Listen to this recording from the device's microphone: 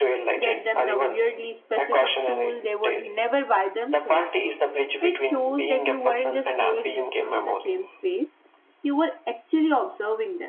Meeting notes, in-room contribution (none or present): present